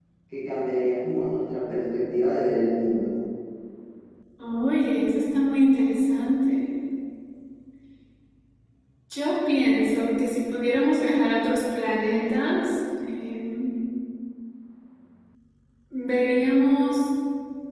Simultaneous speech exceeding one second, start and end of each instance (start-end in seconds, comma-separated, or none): none